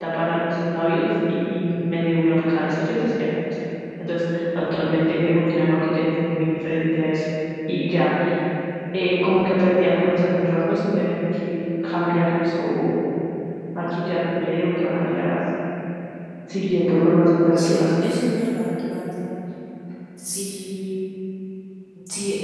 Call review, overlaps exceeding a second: none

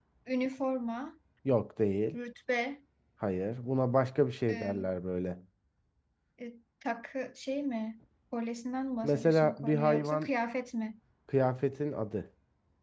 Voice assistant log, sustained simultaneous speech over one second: present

